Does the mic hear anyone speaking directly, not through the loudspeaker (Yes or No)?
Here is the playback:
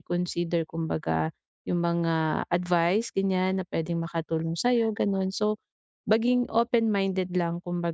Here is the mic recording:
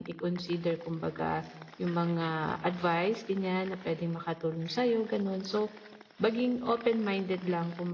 No